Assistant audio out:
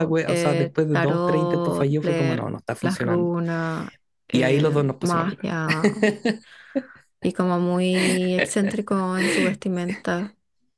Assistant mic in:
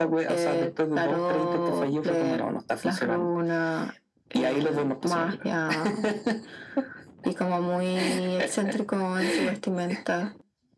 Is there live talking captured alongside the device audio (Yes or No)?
No